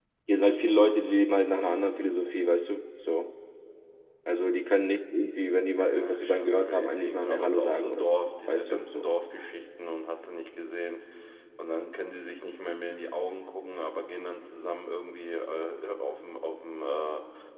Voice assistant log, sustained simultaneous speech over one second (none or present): present